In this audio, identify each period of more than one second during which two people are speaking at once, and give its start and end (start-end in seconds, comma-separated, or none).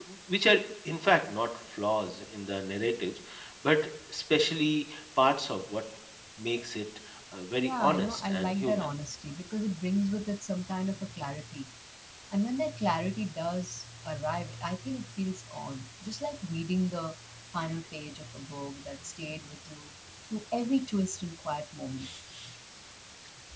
7.6-8.9